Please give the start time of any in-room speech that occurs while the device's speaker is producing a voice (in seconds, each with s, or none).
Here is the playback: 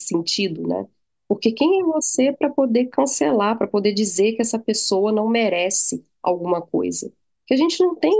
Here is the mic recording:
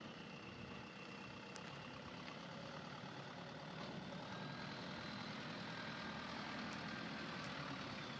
none